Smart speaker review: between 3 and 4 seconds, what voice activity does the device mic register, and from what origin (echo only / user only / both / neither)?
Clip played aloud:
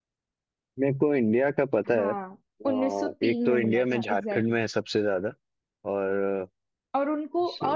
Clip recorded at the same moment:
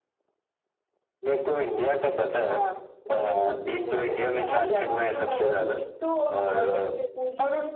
echo only